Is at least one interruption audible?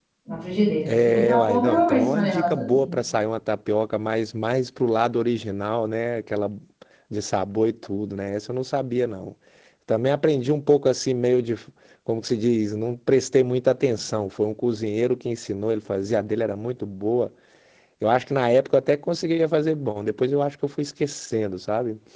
Yes, from 0.9 s

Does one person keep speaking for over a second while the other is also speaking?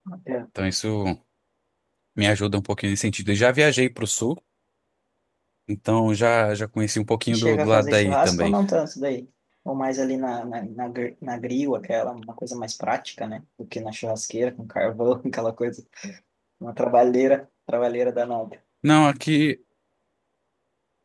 Yes, from 7.3 s

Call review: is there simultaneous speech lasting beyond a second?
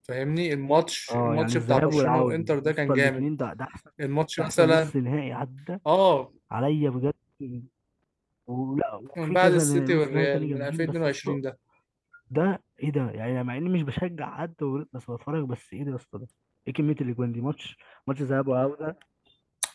Yes, from 1.1 s

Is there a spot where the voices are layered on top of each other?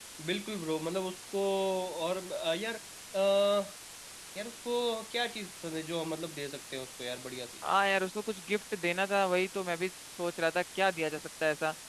No

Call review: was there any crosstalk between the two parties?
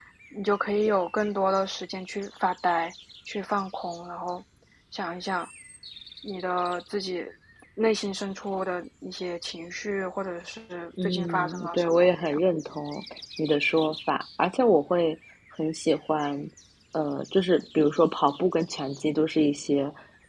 Yes, from 11.0 s

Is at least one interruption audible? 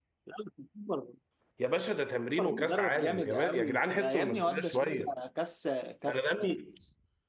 Yes, from 2.4 s

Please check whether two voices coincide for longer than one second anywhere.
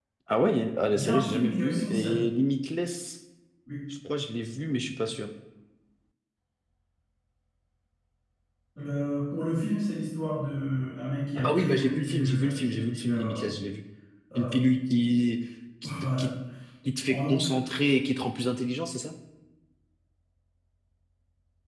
Yes, from 0.9 s

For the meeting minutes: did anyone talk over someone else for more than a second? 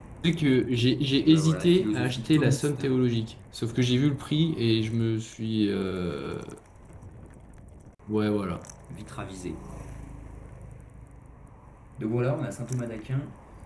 Yes, from 1.2 s

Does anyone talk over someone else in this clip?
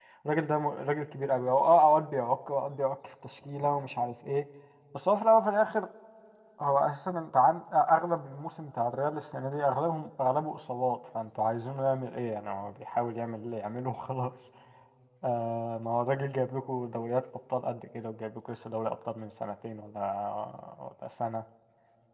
No

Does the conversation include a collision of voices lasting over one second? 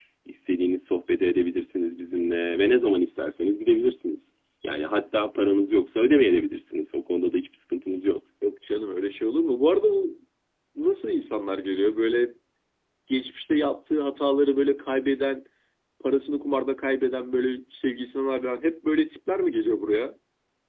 No

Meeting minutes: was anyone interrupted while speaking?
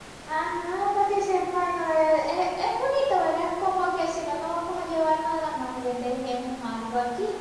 No

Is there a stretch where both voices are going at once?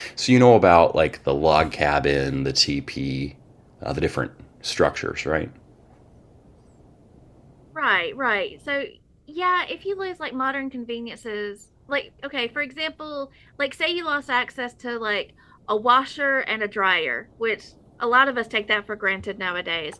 No

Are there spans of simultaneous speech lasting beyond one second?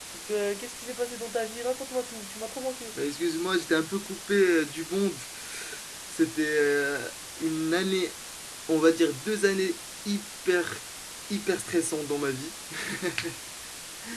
No

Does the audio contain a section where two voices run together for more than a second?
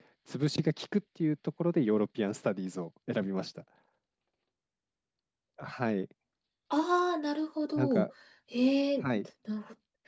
No

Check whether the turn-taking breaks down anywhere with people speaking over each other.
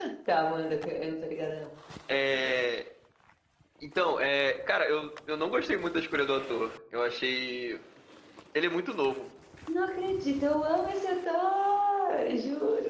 No

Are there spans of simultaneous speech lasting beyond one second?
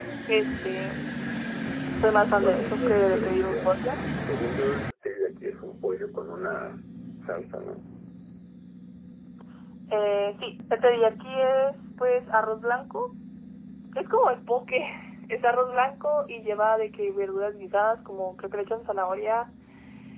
Yes, from 2.4 s

